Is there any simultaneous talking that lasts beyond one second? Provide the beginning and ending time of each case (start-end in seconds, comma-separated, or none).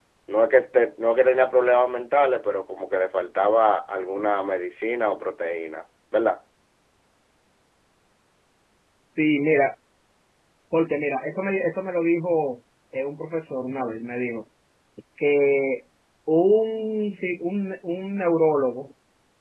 none